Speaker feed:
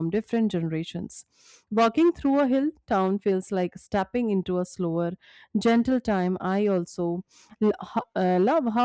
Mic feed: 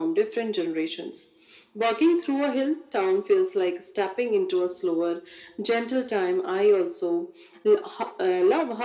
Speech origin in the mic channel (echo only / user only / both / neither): echo only